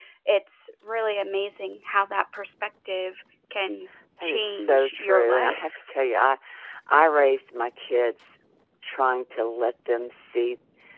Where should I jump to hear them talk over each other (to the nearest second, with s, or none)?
4 s